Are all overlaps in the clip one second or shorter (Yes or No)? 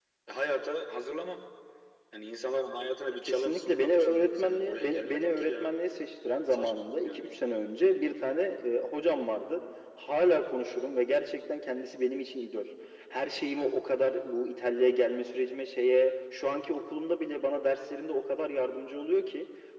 No